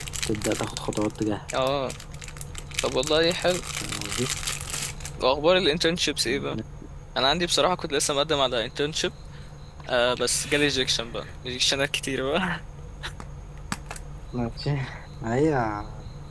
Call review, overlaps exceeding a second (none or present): none